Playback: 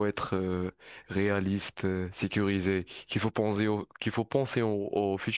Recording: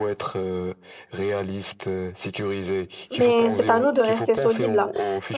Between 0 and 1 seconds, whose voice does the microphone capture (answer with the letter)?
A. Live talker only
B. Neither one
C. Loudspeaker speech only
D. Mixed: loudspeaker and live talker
C